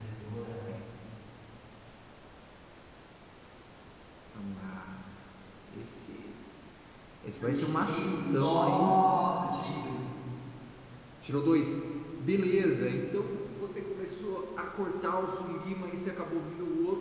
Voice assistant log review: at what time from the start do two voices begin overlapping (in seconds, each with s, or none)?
7.4 s